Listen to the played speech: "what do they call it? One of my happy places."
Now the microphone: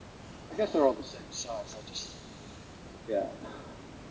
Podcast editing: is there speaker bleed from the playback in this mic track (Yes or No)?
No